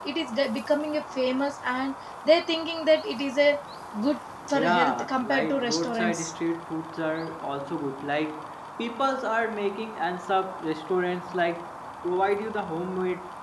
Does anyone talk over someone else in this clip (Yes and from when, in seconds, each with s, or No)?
Yes, from 4.5 s